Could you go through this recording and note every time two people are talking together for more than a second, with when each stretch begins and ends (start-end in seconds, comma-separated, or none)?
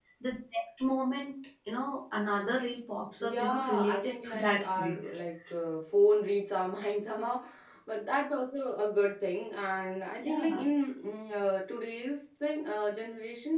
3.2-5.1